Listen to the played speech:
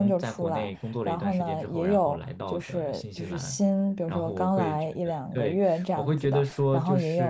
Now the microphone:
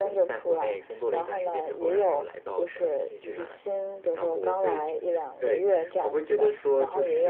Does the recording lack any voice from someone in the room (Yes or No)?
Yes